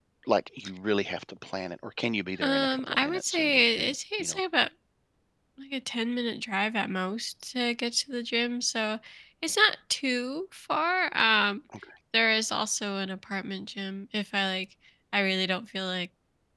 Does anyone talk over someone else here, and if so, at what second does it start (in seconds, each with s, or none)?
2.4 s